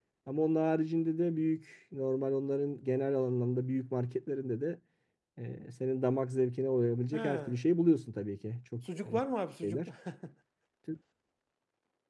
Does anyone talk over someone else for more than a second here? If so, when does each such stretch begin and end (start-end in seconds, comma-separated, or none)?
none